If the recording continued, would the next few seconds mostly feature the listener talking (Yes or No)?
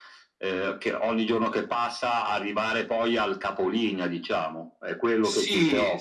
Yes